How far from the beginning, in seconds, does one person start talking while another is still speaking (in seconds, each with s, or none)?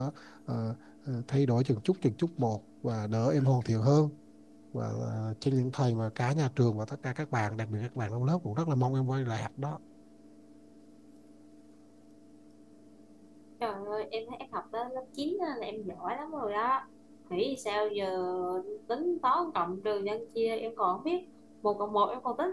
none